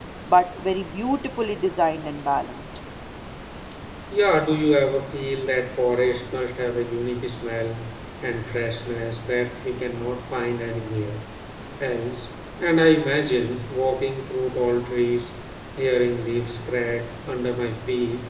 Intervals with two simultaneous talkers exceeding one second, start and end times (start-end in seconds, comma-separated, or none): none